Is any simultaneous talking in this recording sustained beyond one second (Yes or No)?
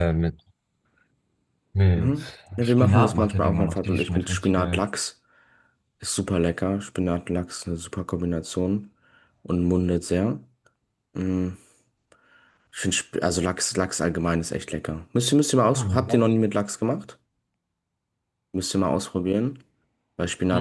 Yes